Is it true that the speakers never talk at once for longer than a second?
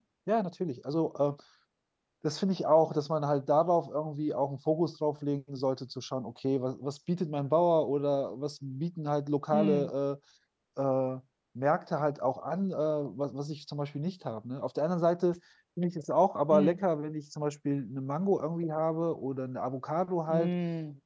Yes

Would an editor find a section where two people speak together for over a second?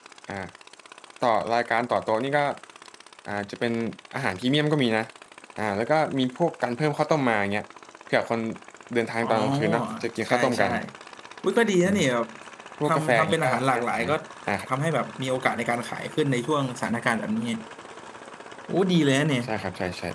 Yes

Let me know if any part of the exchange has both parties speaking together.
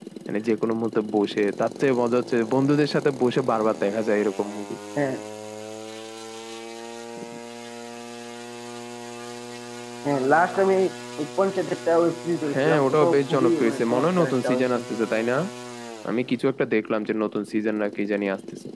Yes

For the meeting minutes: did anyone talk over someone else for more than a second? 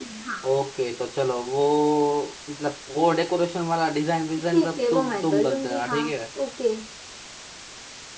Yes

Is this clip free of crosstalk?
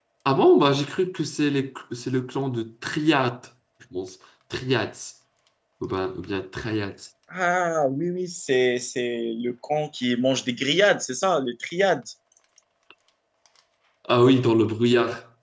Yes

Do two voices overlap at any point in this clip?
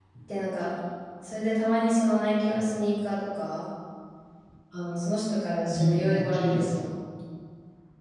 Yes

